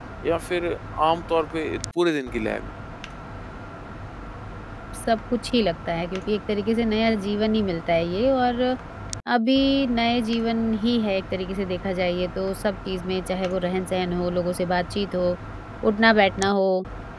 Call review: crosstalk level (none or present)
none